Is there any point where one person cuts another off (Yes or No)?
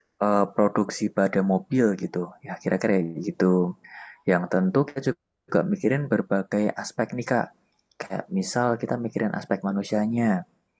No